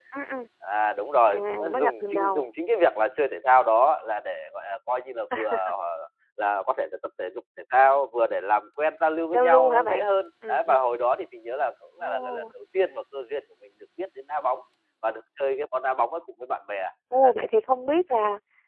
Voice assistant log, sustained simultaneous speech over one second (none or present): present